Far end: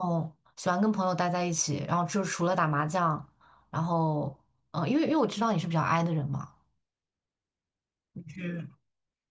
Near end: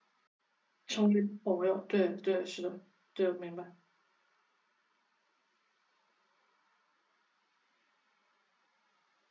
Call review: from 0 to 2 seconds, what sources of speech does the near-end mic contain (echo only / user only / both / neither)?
user only